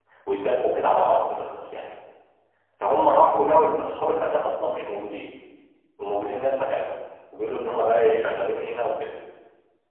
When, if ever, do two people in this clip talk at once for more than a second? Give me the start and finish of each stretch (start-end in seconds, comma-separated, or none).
none